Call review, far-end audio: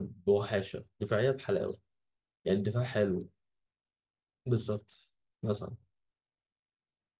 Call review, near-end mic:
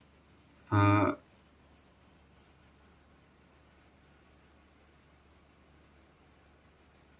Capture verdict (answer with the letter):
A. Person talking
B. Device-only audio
A